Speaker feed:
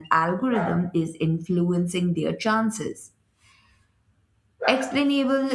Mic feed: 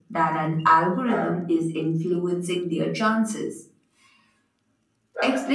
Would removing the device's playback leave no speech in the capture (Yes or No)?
Yes